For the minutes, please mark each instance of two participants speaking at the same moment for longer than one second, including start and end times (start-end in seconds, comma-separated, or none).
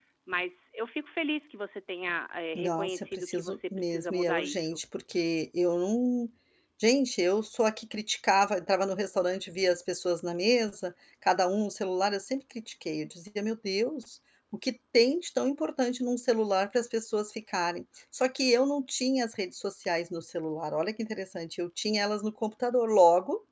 2.5-4.8